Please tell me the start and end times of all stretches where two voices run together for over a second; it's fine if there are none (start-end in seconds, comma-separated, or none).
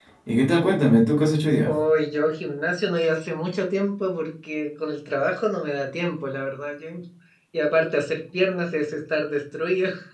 none